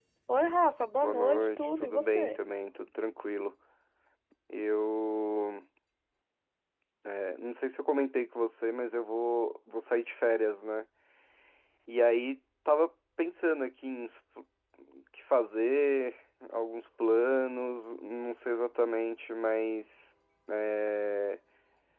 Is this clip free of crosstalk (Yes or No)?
No